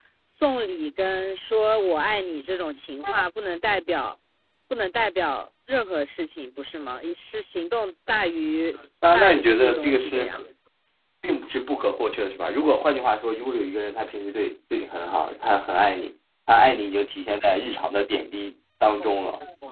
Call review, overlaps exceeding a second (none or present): present